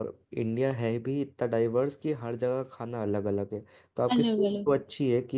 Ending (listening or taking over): listening